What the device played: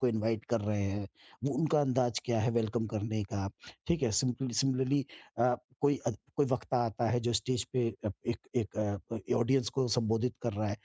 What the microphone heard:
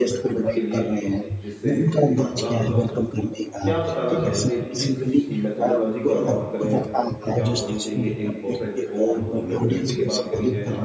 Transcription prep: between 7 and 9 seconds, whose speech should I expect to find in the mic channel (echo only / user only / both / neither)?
both